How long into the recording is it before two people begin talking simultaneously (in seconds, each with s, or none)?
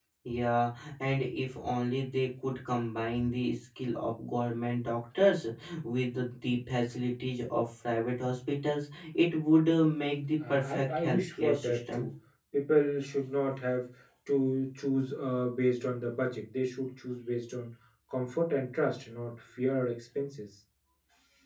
10.4 s